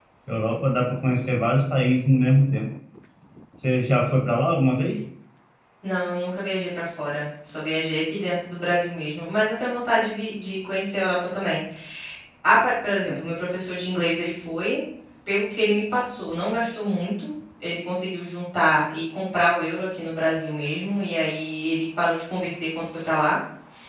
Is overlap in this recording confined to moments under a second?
Yes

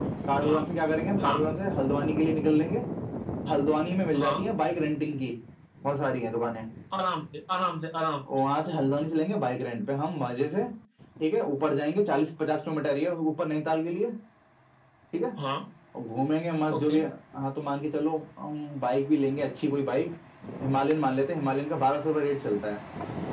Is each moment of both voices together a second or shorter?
Yes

